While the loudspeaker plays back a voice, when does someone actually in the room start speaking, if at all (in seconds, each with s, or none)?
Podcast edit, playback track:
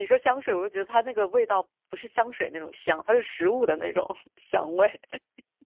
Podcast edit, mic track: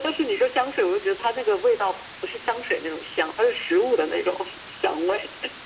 none